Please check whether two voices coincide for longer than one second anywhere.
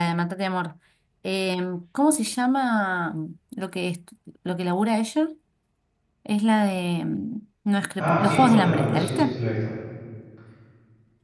Yes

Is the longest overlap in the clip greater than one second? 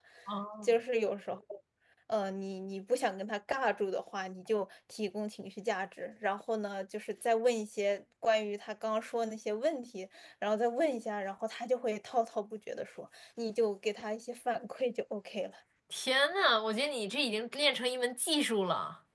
No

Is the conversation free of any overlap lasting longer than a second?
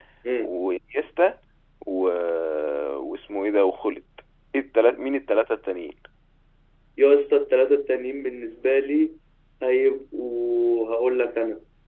Yes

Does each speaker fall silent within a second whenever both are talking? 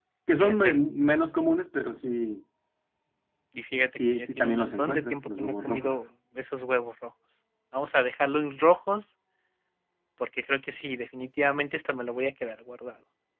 No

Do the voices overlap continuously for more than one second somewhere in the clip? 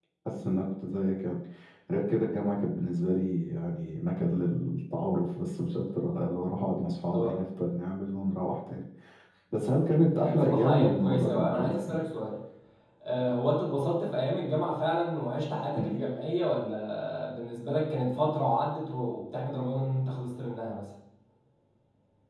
Yes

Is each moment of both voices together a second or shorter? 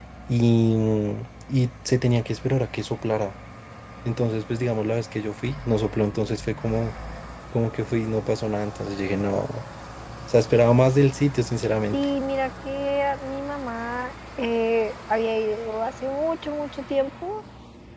Yes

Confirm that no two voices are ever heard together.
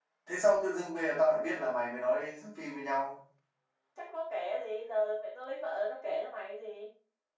Yes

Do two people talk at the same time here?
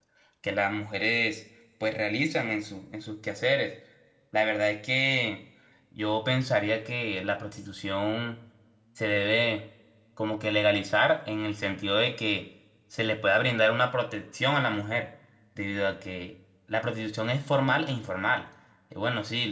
No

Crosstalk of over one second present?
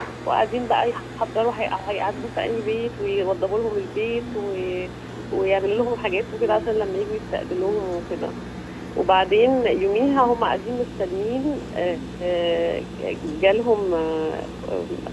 No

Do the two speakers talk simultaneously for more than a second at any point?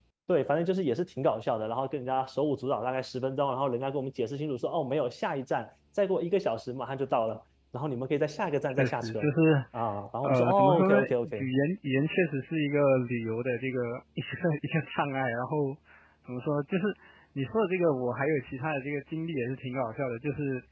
Yes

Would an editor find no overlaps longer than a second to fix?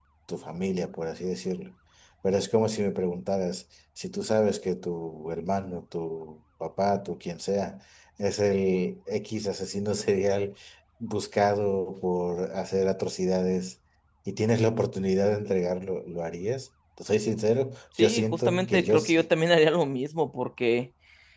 No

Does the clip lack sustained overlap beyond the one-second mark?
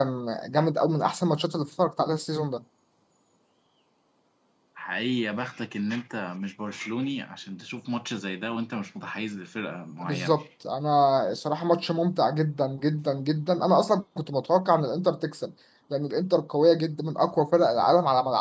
Yes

